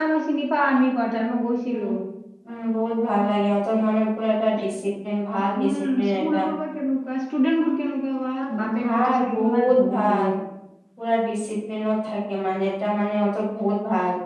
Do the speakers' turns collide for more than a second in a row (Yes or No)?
Yes